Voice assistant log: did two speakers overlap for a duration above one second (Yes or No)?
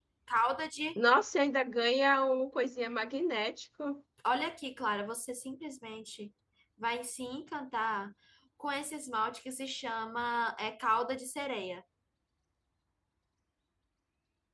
No